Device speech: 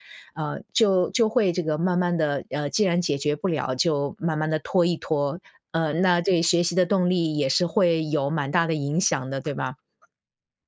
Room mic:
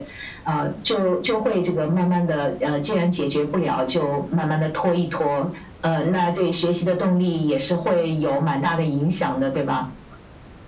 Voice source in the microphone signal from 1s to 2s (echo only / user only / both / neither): echo only